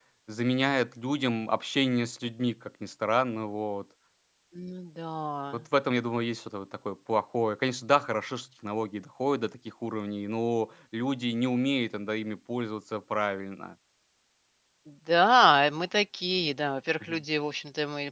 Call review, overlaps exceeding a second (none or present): none